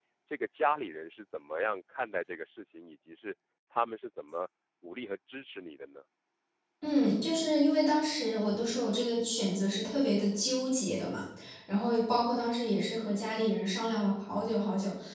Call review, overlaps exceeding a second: none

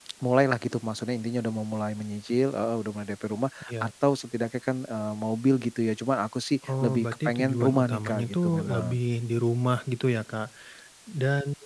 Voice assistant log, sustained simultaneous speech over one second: present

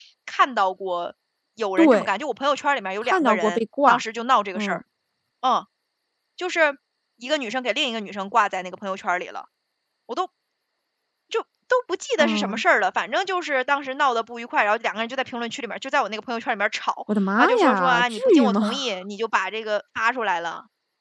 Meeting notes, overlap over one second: present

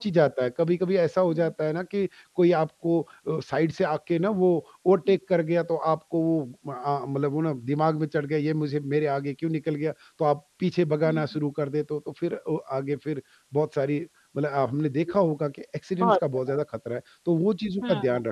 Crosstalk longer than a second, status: none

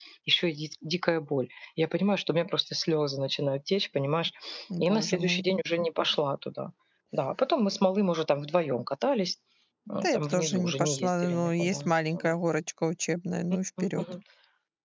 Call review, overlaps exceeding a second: present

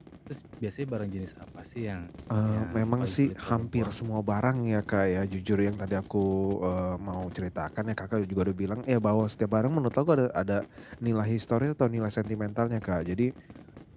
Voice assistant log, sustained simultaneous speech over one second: present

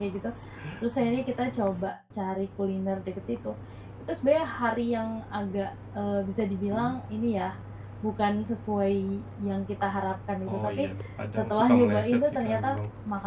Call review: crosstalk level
present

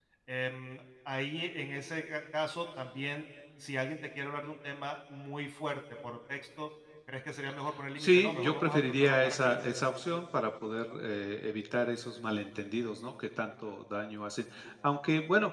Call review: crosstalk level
present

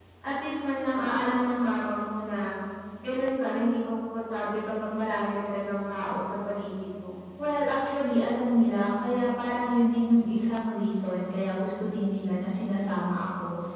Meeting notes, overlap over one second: none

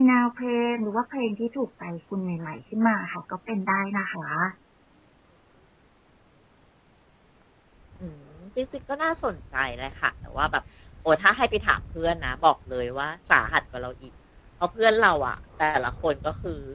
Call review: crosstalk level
none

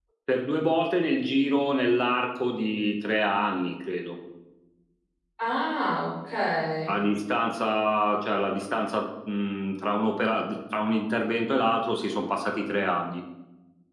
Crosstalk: none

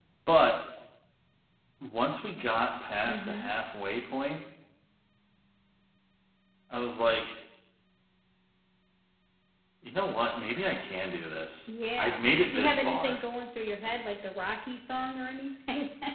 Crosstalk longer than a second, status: present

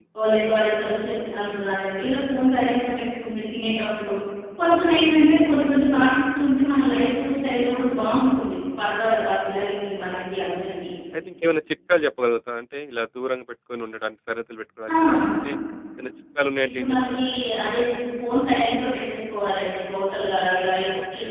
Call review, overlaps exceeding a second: none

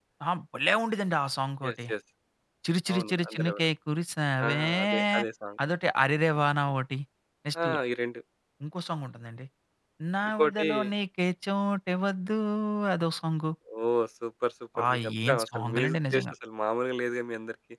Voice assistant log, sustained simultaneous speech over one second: present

